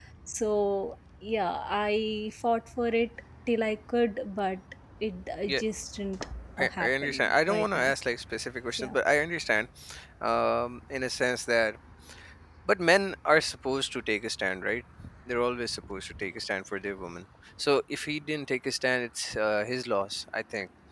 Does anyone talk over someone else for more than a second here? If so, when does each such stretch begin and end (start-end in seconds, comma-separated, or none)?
6.6-7.9